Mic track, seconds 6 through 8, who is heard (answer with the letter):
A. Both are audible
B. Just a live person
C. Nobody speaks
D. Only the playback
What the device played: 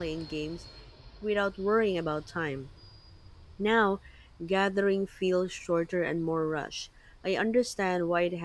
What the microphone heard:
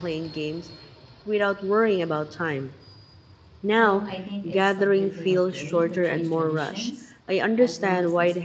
A